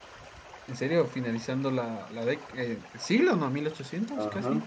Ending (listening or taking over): taking over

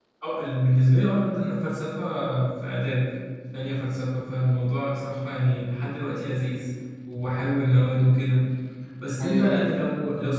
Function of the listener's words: listening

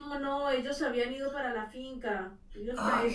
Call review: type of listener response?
listening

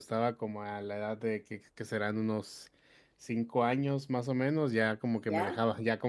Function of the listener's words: listening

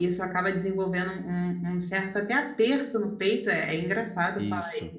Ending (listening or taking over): taking over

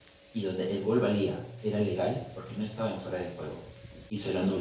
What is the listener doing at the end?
listening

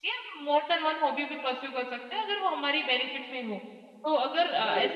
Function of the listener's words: listening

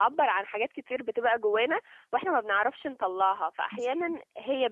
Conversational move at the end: listening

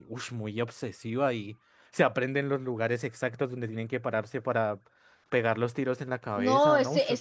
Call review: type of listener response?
taking over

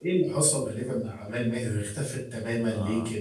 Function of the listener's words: taking over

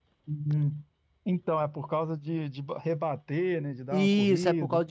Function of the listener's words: taking over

